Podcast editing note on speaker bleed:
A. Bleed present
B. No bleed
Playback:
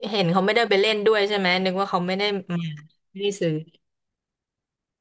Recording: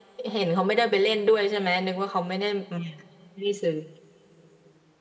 A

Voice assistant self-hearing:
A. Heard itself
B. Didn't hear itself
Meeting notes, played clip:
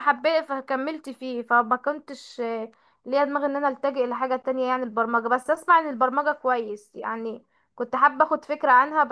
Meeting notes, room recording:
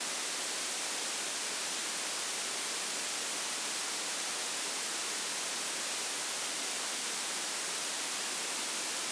B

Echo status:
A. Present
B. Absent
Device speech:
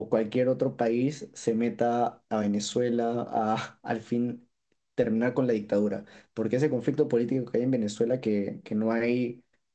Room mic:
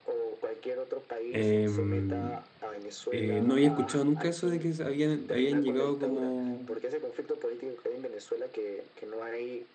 A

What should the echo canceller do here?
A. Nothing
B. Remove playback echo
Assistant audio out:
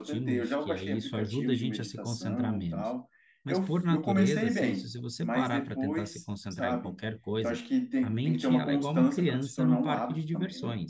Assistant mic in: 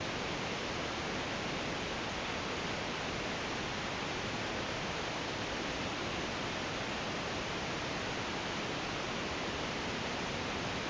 A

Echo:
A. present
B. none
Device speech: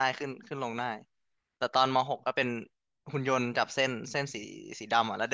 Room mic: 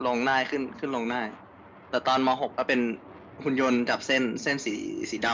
A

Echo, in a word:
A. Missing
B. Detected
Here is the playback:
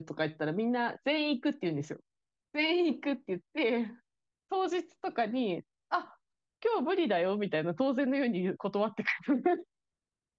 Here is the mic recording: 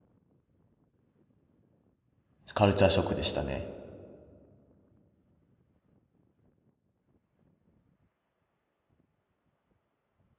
A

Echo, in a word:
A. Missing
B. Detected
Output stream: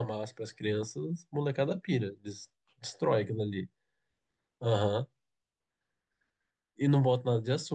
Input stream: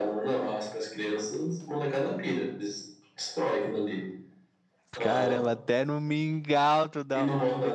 B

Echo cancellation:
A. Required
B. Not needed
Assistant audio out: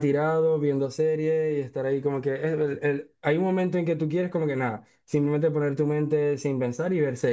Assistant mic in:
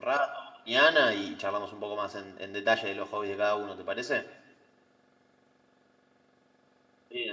B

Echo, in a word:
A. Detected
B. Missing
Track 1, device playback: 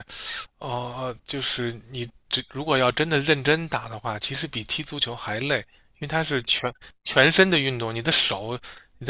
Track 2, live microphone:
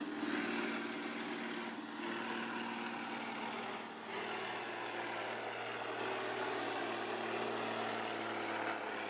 B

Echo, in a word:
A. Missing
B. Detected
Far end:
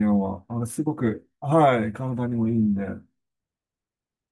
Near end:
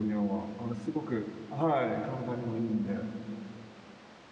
B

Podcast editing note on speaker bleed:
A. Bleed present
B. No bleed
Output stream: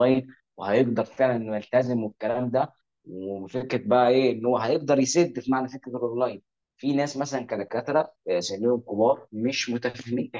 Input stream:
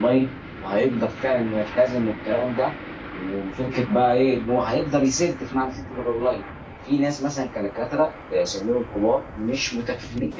A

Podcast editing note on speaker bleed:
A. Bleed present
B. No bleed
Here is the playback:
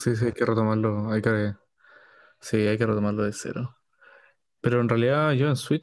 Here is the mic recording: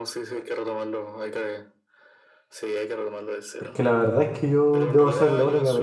A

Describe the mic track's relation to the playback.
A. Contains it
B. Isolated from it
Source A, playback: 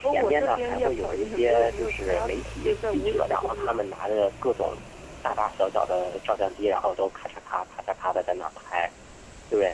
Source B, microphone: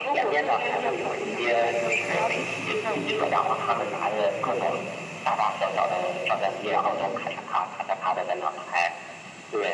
A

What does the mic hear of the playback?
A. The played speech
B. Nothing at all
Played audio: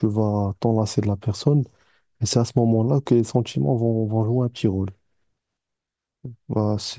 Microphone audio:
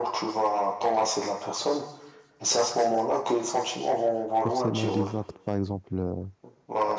A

